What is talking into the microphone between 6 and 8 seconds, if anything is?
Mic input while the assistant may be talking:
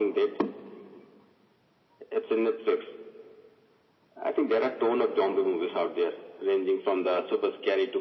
echo only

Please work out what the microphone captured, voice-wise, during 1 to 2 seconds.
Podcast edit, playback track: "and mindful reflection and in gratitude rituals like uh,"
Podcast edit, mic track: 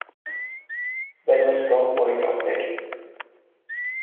user only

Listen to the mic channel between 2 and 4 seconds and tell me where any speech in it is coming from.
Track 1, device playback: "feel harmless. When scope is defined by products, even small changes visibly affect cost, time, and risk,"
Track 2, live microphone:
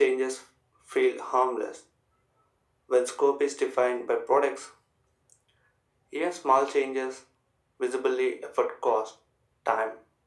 echo only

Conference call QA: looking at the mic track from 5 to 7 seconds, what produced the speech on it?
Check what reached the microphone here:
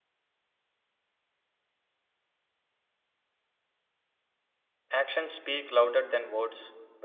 user only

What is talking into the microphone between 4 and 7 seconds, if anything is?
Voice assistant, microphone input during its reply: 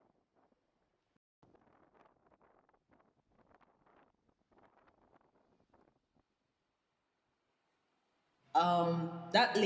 neither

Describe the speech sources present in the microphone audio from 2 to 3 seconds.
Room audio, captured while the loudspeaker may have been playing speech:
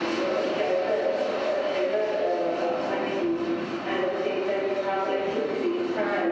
echo only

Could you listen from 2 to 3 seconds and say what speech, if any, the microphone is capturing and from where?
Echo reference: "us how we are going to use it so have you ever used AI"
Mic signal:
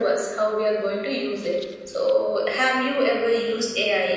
echo only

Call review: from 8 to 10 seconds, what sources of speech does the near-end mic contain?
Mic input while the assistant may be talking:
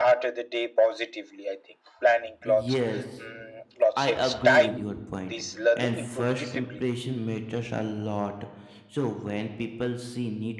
user only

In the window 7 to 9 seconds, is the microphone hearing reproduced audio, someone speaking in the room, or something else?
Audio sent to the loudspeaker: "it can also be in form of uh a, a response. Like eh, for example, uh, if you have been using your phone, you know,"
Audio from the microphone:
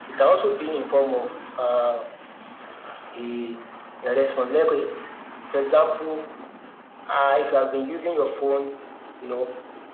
echo only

